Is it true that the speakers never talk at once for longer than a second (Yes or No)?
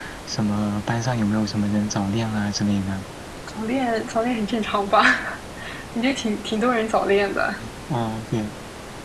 Yes